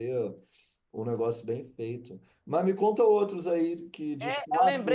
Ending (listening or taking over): taking over